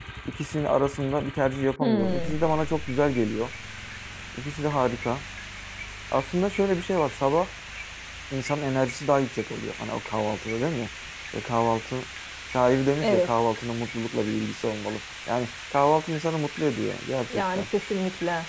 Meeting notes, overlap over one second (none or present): none